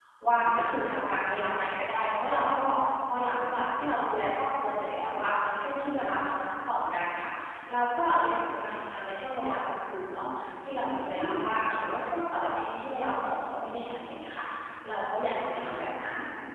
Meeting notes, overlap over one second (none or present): none